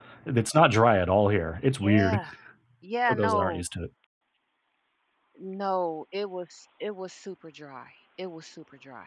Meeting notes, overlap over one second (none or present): none